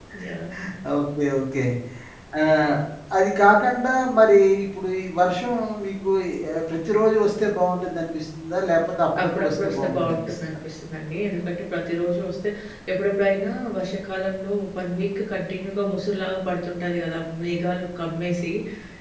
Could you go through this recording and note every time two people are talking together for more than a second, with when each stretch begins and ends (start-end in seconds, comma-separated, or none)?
9.2-10.6